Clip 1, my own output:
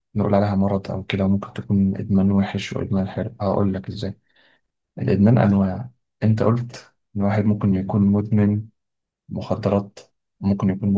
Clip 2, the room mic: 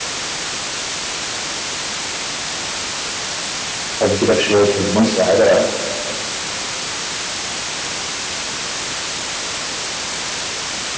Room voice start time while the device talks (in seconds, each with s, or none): 4.0 s